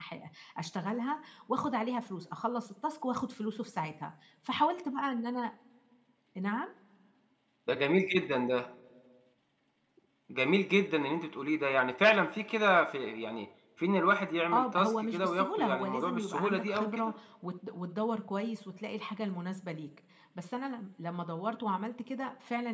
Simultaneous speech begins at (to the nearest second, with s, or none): 15 s